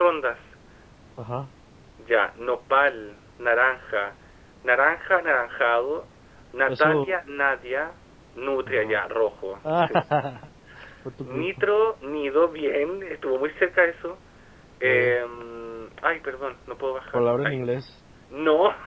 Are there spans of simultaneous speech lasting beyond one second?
No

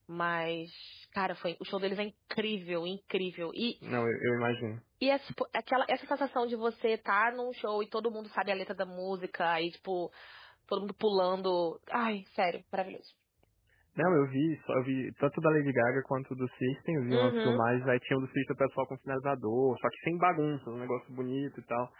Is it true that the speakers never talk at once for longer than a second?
Yes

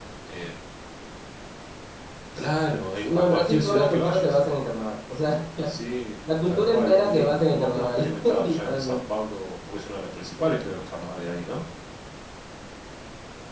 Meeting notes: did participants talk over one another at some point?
Yes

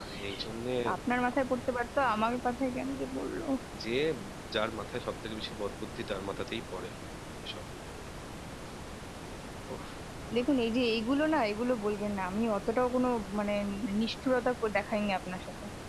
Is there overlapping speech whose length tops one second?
No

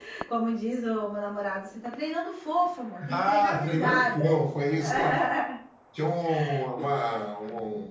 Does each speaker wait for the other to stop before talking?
No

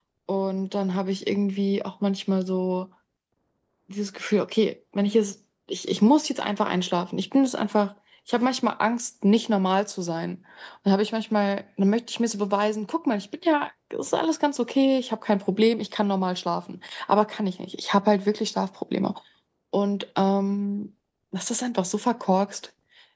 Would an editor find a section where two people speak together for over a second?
No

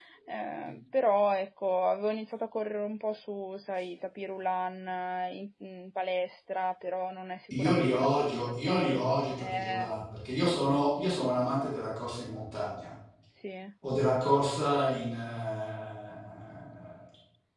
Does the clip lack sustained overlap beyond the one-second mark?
No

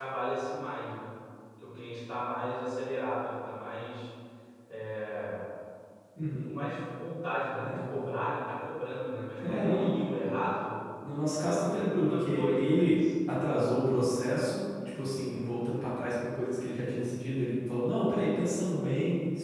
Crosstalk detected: Yes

